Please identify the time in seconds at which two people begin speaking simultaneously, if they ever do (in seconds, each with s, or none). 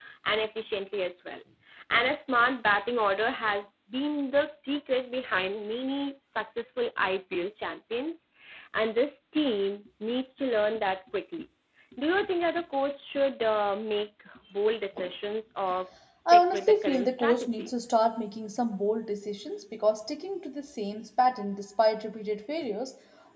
16.2 s